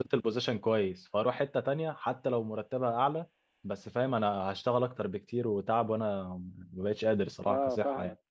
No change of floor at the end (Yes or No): No